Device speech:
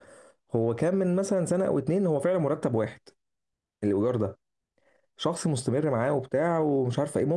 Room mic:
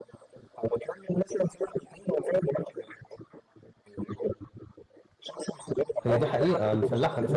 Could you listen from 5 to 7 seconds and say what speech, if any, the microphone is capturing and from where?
both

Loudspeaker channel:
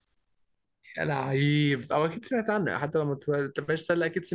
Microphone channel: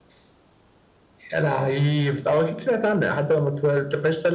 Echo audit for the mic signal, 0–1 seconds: neither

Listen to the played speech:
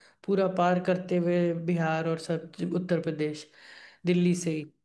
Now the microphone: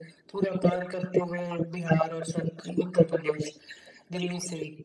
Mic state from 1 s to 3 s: echo only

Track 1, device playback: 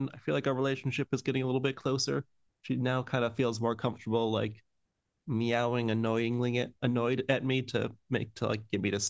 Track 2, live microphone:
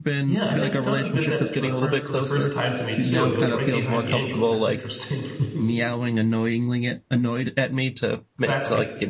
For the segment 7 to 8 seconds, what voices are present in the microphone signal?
echo only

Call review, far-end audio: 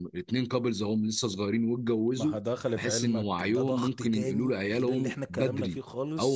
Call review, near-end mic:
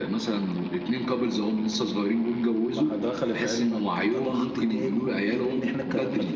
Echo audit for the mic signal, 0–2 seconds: echo only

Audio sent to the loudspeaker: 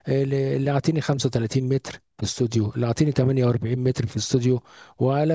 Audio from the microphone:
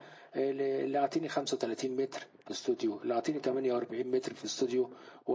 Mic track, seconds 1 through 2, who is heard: echo only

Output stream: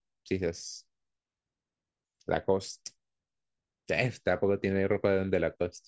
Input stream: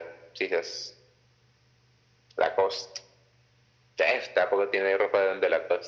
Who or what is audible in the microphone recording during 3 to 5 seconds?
echo only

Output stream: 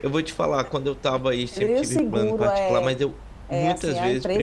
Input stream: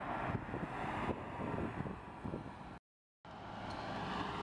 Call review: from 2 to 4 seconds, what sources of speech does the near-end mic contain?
neither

